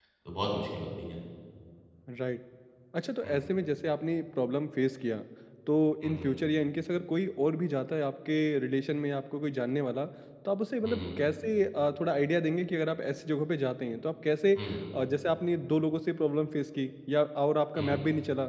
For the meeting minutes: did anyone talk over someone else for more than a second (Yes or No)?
No